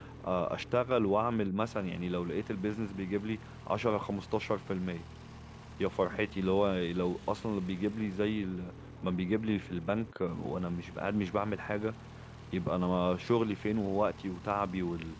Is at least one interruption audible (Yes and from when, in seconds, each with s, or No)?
No